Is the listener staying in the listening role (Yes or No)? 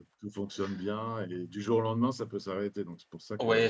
No